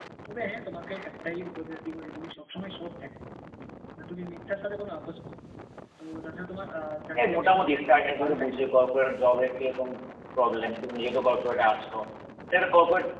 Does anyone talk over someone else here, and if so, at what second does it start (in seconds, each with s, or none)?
7.2 s